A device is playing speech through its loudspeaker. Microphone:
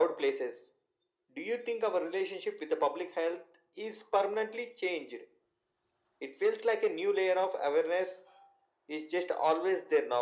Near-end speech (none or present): none